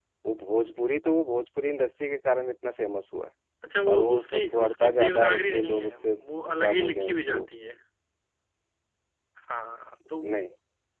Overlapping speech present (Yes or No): Yes